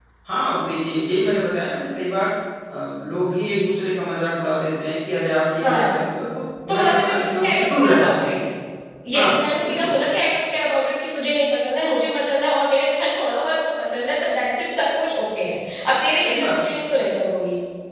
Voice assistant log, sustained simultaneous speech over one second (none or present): present